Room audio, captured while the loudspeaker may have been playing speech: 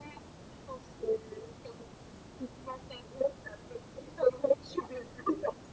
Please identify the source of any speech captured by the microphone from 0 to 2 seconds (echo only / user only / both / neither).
echo only